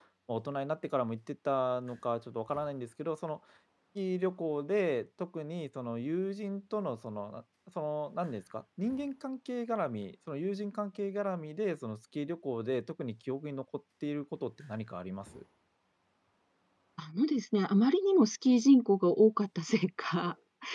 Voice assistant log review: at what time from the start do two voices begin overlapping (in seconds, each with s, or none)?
none